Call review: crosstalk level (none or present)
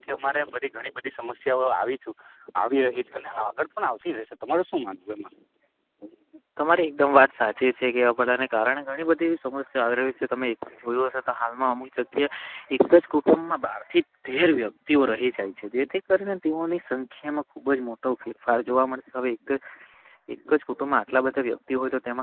none